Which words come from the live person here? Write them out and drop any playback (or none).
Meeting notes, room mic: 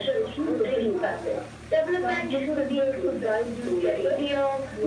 none